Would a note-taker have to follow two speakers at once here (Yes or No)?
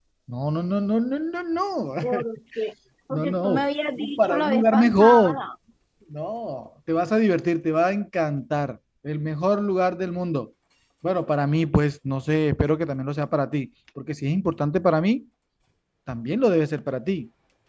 Yes